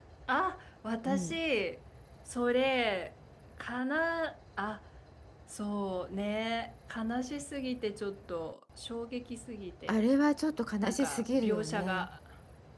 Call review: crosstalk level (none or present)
present